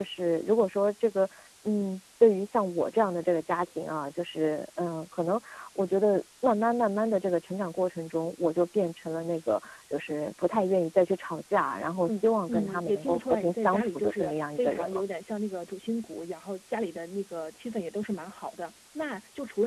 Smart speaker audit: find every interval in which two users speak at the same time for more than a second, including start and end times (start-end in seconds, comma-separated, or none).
12.1-15.0